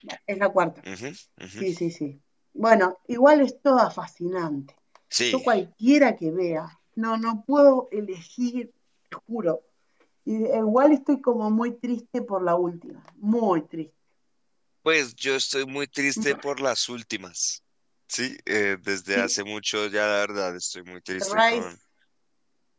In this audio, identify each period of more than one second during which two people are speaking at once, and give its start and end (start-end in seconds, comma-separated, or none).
none